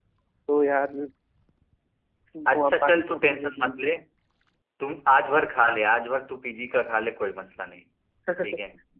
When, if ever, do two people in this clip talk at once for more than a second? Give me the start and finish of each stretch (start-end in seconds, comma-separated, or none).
2.5-3.8